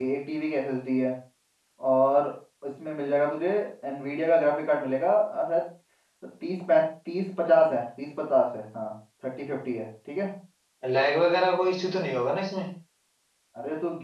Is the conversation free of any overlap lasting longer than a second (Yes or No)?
Yes